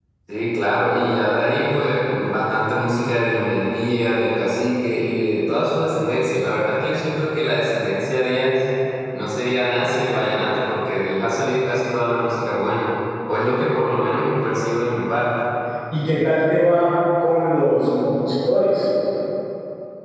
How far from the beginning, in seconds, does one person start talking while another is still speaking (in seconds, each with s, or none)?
none